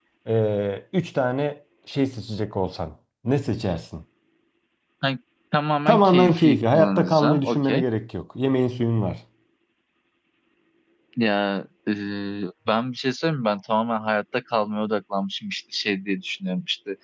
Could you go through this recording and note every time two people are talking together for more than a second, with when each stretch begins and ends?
5.9-7.8

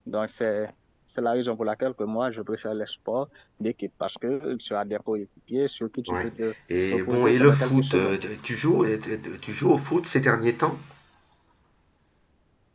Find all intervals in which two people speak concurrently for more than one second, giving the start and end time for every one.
6.9-8.2

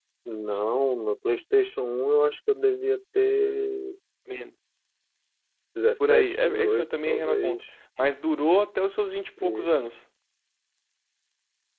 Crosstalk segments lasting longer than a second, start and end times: 6.1-7.6

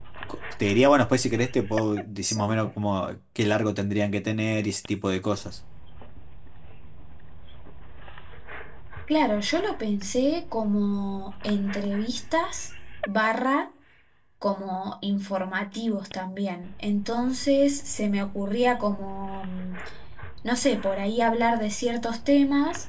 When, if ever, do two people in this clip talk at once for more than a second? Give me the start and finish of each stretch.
none

